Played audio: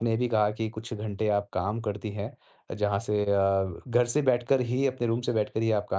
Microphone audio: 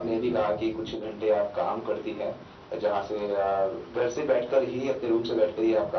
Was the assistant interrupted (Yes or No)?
No